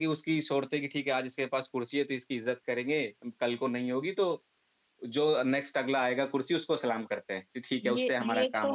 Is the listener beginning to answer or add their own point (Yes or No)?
Yes